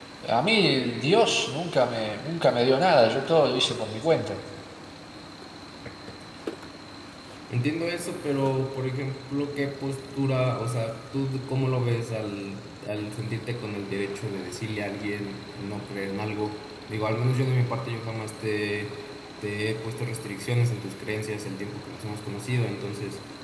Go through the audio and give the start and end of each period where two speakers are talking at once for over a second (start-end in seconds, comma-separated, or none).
none